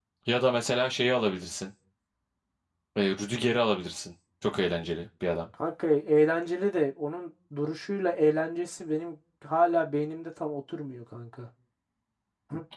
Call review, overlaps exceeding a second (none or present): none